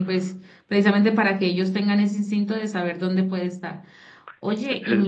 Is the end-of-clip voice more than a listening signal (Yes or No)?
No